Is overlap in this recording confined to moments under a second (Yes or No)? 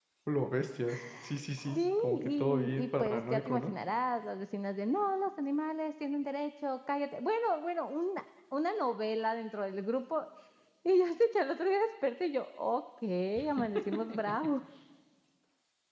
No